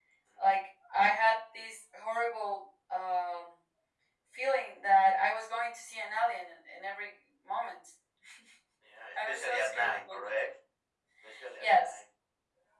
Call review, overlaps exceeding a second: present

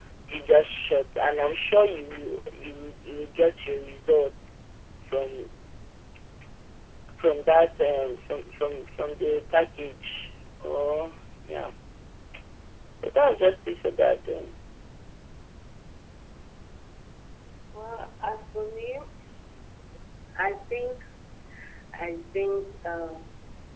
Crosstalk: none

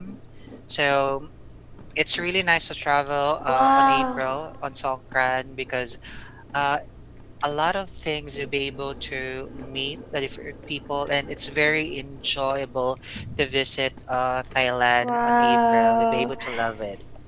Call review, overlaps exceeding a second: present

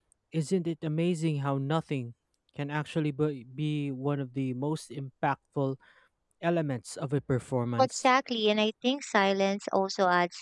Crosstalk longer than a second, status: none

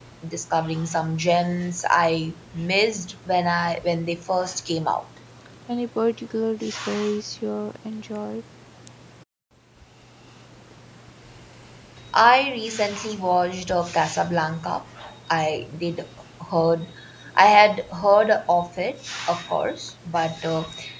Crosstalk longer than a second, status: none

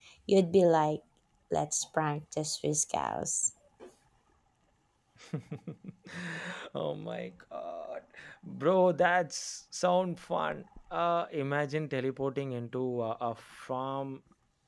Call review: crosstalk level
none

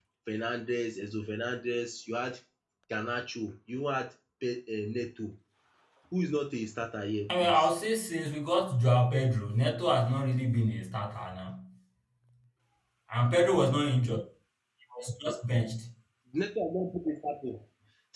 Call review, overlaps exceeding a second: none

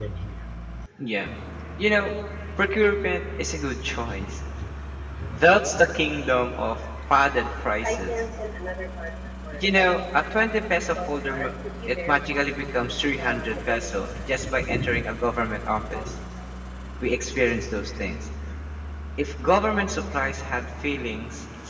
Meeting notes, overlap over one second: present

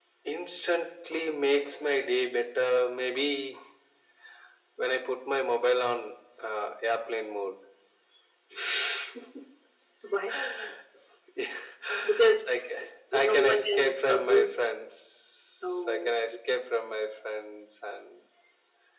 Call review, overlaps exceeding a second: present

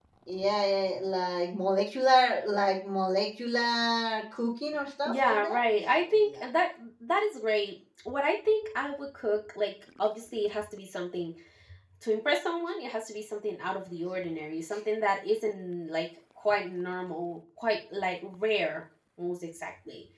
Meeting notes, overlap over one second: present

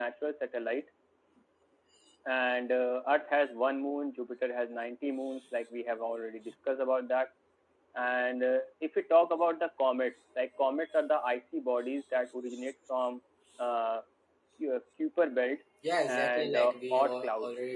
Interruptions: present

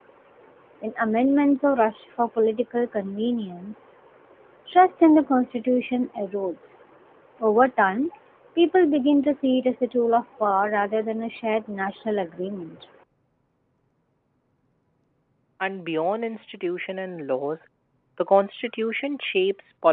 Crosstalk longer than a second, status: none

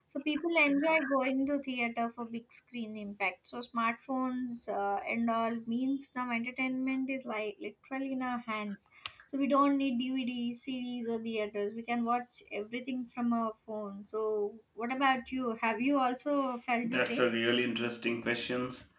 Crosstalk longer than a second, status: none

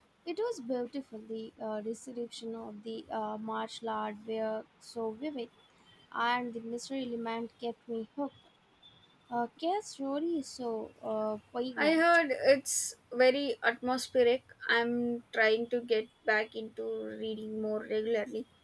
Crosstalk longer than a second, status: none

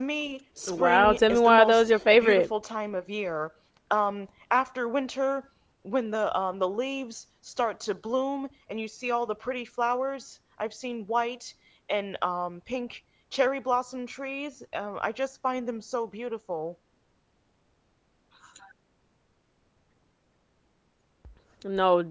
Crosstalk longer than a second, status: present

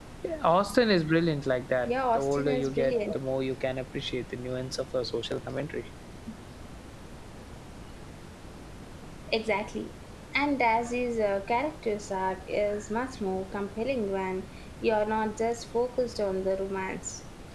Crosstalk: present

